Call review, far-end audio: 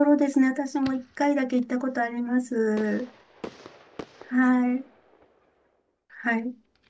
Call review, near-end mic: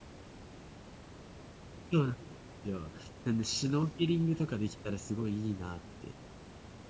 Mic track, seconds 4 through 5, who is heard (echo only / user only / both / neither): user only